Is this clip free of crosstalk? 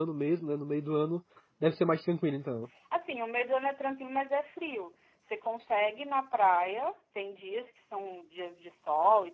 Yes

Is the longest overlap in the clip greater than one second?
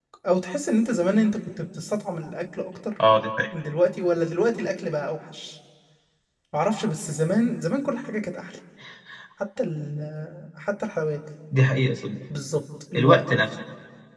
No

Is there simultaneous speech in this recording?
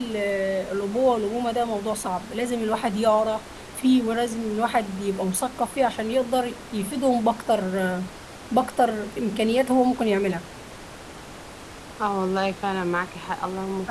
No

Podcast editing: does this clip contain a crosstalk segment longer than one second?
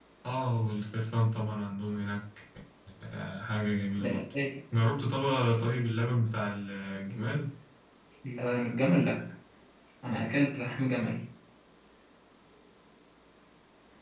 No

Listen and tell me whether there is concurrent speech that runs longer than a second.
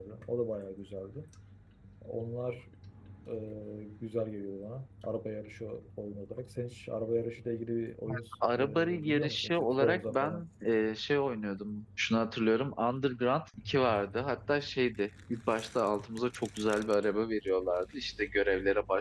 Yes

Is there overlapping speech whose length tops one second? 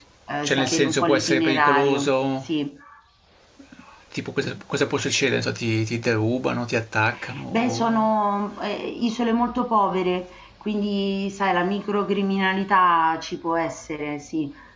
Yes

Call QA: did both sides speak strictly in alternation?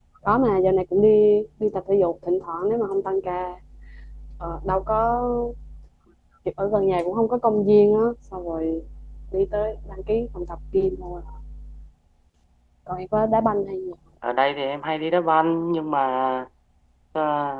Yes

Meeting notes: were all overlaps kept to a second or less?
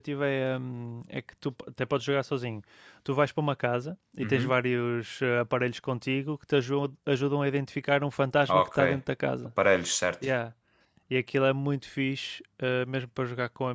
Yes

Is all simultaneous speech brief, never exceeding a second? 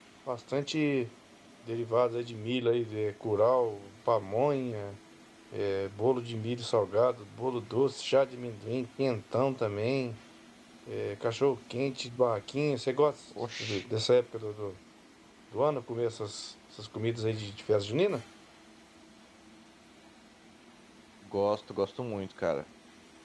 Yes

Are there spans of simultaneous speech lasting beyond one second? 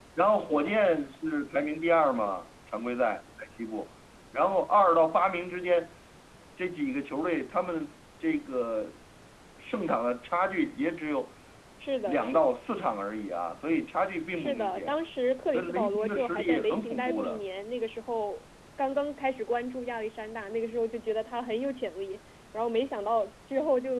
Yes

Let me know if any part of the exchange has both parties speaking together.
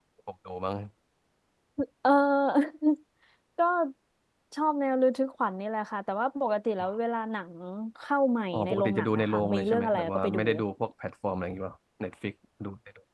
Yes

